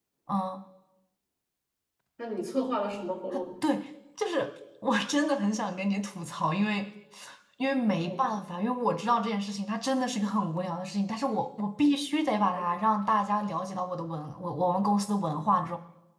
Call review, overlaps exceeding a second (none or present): none